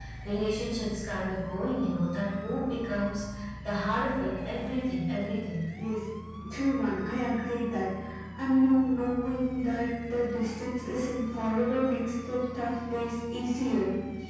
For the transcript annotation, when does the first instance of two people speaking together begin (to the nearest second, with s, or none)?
none